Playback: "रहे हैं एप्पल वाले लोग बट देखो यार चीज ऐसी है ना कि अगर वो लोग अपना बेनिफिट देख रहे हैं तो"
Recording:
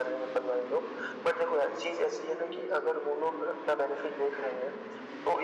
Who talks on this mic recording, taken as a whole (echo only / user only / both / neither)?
echo only